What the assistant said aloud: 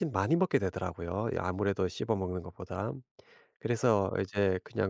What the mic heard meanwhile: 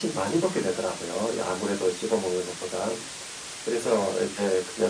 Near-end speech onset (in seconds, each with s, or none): none